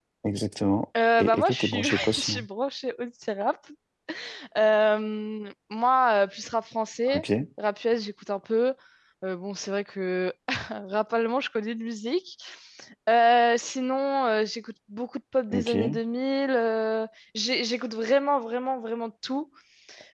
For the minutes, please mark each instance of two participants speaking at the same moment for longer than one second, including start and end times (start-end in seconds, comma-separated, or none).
1.2-2.4